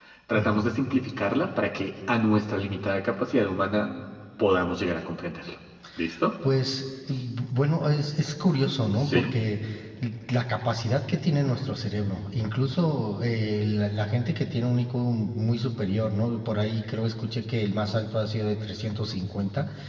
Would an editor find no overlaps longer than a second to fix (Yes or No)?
Yes